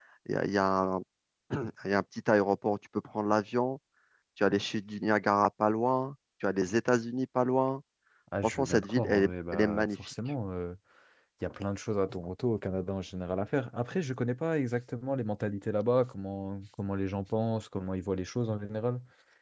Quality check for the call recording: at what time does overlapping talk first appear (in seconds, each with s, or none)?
8.4 s